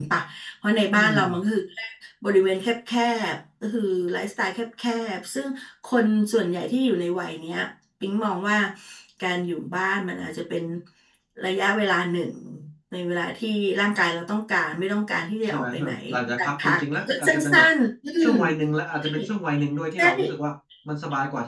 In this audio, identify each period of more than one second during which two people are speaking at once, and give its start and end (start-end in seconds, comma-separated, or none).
15.4-17.6